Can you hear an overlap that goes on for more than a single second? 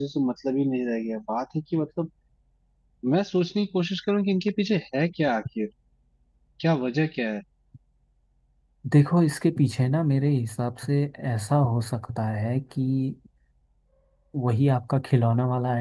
No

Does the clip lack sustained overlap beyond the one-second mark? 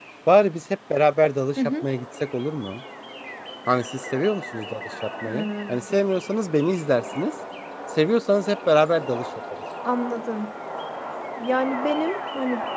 Yes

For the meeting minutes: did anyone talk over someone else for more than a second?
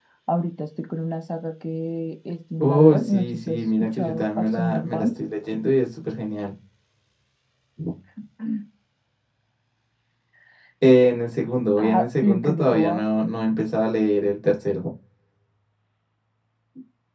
Yes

